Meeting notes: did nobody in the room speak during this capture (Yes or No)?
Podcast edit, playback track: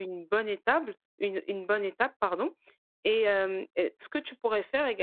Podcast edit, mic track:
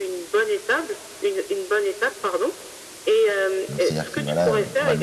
No